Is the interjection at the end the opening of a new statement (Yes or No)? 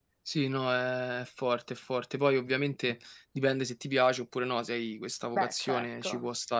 No